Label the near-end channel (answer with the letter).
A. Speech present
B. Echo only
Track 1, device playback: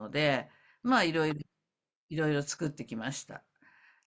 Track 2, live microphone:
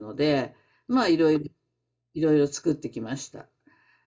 B